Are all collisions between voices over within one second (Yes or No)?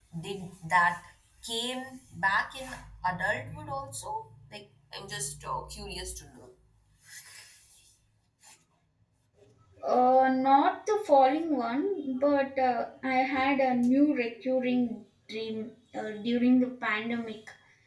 Yes